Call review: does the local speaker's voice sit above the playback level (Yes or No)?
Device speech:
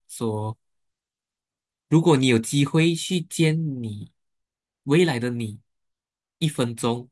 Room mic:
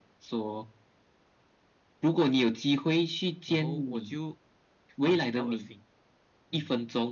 No